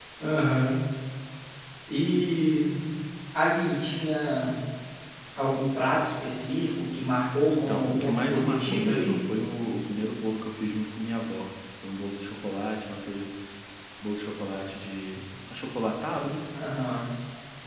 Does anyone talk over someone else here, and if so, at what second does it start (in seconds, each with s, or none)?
7.5 s